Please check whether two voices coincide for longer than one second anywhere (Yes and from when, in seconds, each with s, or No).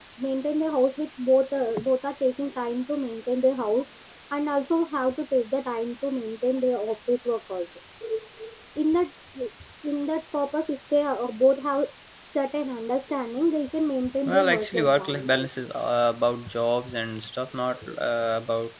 Yes, from 14.2 s